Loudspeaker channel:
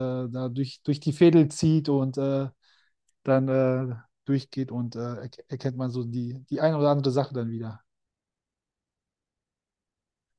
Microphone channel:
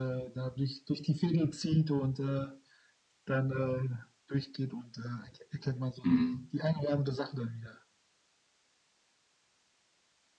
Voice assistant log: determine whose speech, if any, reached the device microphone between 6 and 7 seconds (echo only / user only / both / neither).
both